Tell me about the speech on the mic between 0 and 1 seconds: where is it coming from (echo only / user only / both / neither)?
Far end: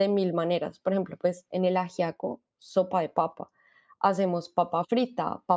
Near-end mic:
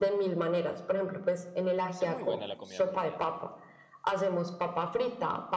echo only